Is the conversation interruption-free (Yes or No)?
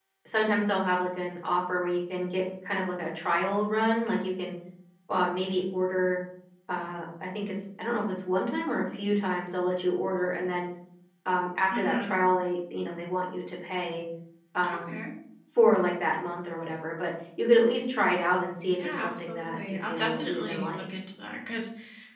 No